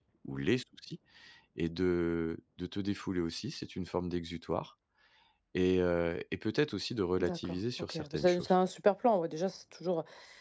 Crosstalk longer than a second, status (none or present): present